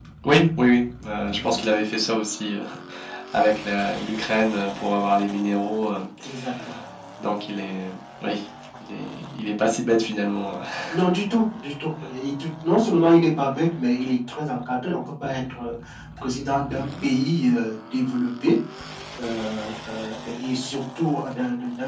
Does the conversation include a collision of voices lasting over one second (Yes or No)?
No